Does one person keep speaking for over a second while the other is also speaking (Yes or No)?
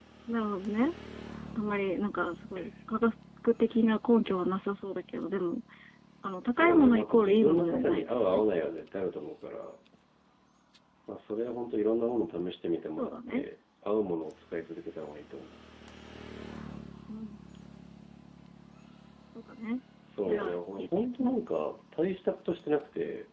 Yes